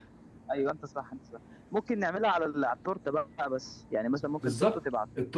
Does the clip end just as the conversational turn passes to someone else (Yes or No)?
Yes